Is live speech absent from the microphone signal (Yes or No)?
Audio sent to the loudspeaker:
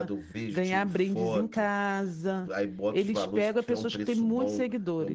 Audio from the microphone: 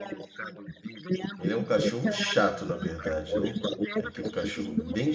No